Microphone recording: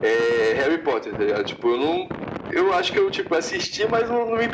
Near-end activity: none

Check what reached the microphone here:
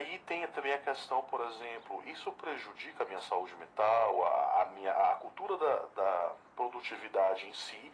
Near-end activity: none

